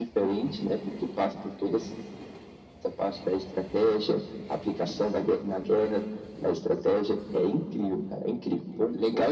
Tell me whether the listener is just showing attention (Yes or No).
No